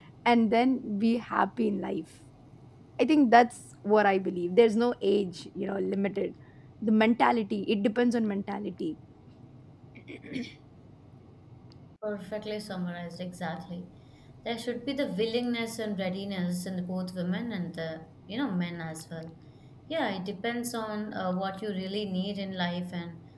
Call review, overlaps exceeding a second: none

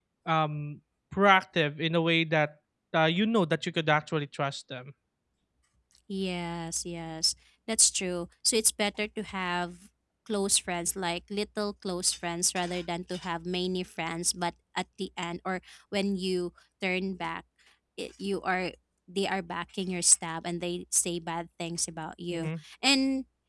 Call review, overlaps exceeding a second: none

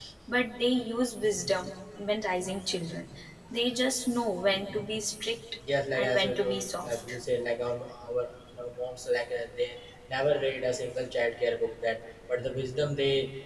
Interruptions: present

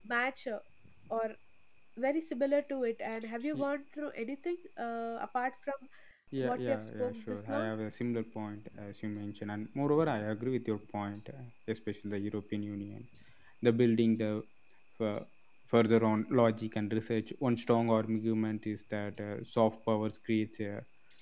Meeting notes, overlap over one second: present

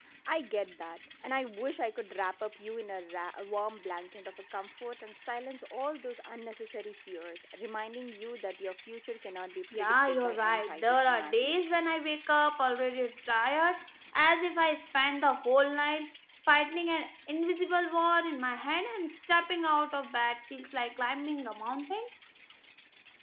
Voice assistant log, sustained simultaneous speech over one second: present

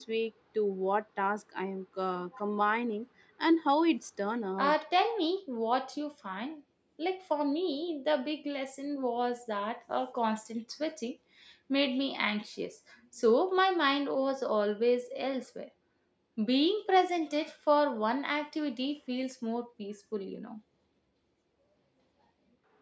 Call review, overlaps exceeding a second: none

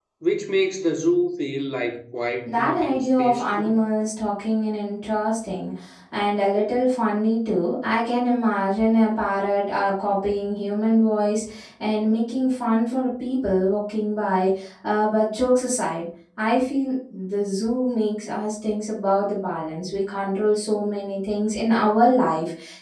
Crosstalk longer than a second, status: present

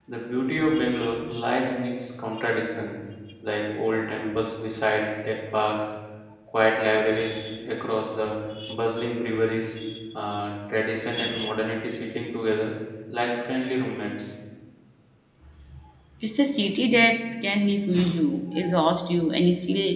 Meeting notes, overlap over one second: none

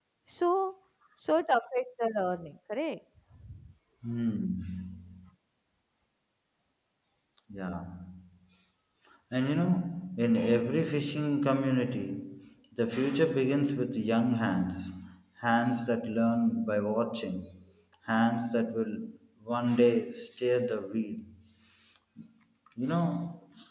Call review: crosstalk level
none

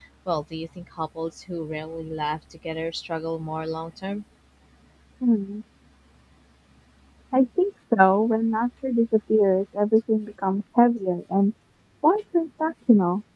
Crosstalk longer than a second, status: none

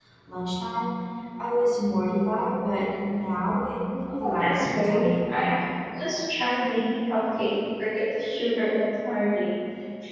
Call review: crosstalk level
present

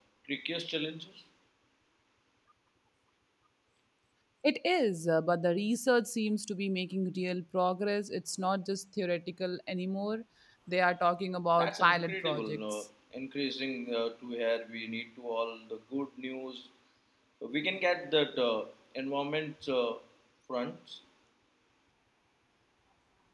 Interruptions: present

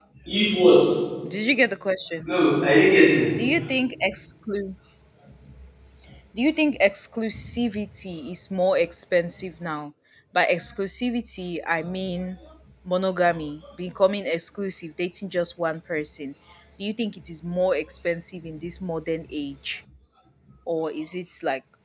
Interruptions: none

